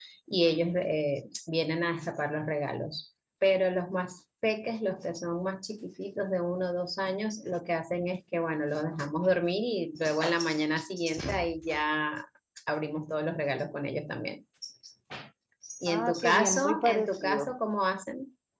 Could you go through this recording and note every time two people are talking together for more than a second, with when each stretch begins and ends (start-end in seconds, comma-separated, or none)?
15.9-17.5